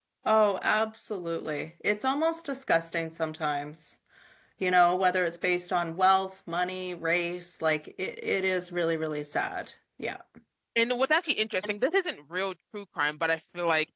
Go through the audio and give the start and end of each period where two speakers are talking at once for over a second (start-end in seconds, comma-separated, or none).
none